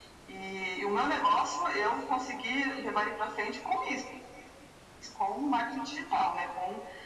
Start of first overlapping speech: none

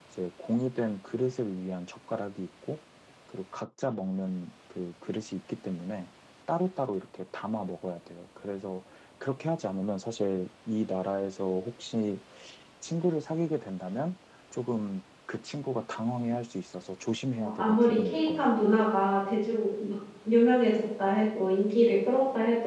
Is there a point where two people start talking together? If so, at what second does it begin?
17 s

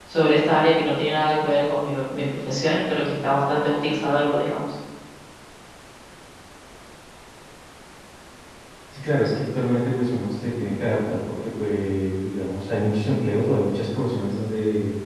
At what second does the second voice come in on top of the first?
none

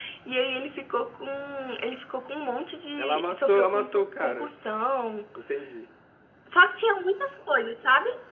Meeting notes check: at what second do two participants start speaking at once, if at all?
3 s

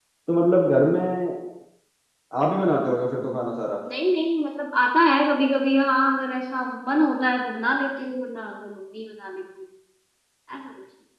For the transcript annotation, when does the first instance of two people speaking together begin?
none

